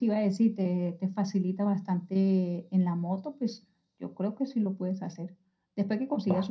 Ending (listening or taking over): listening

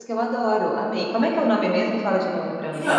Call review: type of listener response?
taking over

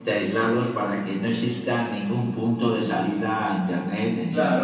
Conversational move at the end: taking over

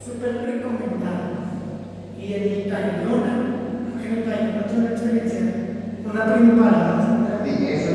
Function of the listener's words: taking over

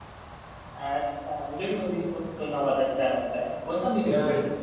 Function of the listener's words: taking over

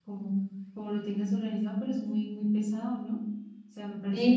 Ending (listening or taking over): taking over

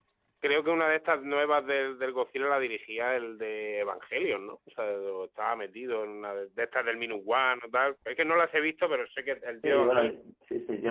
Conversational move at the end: taking over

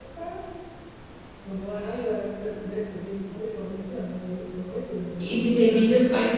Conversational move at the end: taking over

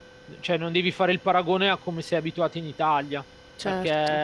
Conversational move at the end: listening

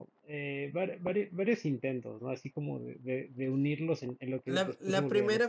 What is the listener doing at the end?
taking over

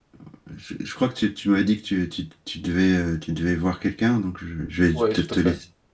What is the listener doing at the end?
taking over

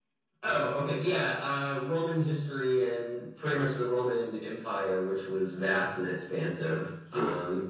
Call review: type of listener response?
listening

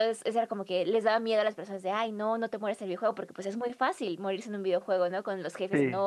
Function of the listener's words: listening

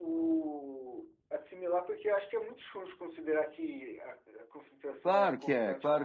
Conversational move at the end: taking over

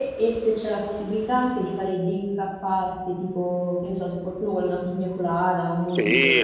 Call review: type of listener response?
taking over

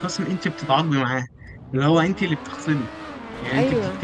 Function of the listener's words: listening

